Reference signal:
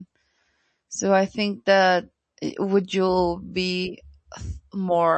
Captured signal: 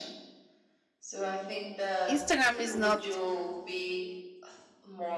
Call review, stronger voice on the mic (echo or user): user